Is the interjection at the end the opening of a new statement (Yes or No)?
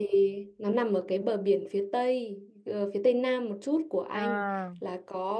No